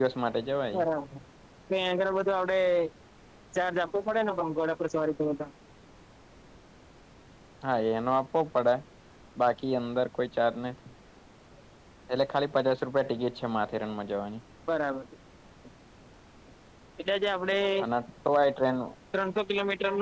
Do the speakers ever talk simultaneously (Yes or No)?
No